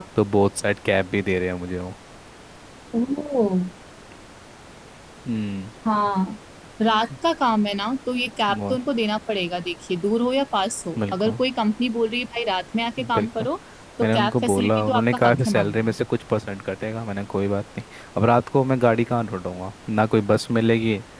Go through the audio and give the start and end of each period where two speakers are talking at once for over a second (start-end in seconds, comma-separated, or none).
14.0-15.9